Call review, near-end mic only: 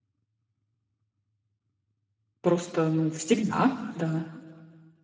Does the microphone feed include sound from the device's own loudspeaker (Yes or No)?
No